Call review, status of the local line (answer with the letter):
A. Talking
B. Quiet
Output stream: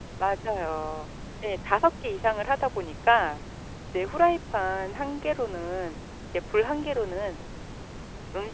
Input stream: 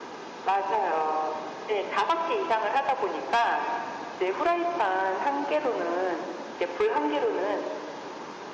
B